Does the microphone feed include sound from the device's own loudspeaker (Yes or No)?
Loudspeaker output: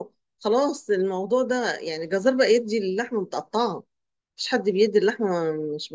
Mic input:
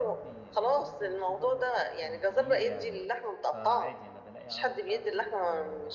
Yes